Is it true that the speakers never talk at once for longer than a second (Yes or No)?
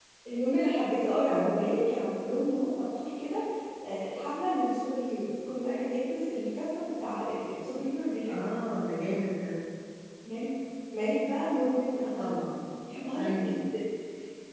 Yes